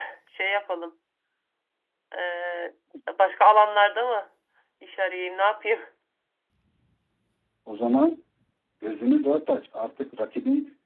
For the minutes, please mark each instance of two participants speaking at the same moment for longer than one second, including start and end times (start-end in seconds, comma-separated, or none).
none